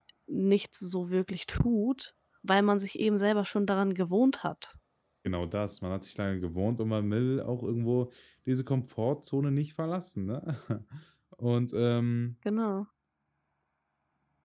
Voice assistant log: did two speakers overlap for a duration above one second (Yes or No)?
No